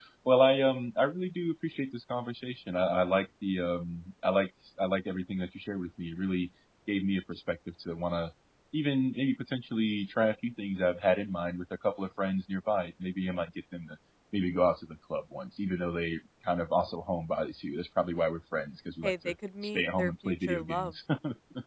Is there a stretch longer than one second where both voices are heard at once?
Yes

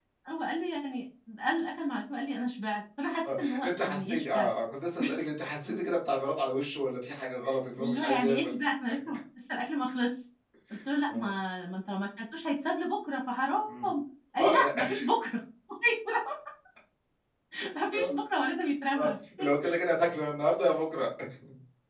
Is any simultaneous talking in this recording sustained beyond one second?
Yes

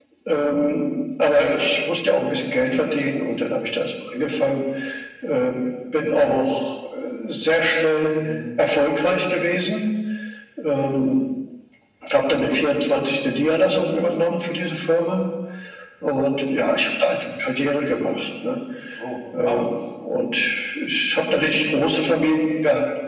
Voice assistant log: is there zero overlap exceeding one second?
Yes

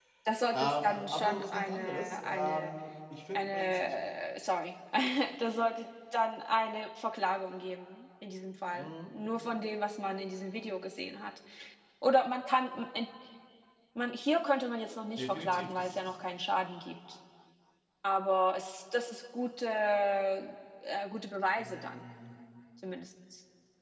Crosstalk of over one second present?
Yes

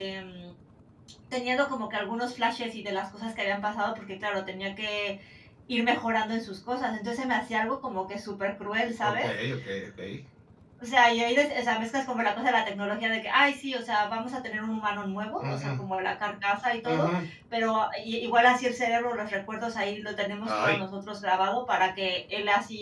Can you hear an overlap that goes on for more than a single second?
No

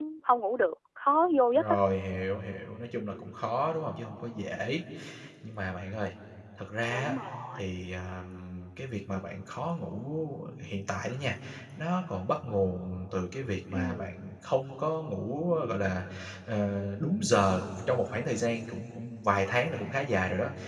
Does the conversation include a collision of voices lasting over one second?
No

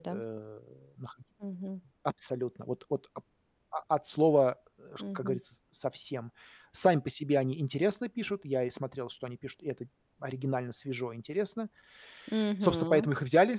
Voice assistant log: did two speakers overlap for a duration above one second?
No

